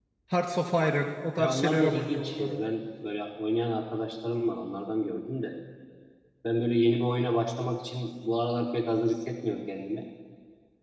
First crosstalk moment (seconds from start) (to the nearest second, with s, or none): 1 s